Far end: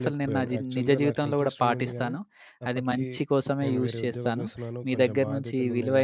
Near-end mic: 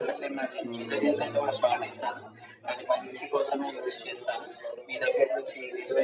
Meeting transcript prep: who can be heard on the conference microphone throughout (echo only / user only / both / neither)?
both